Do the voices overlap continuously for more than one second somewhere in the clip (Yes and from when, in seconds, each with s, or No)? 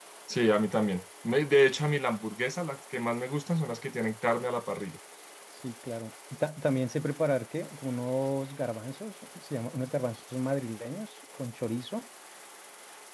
No